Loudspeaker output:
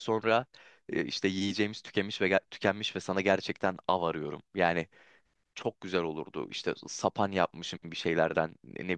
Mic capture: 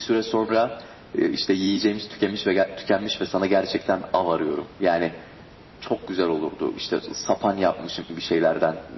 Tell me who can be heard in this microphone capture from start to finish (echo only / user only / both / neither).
echo only